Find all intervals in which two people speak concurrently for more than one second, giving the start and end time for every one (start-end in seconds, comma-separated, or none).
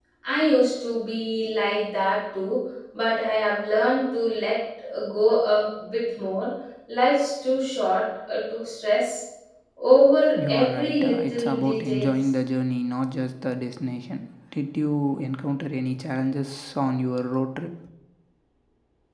10.3-12.1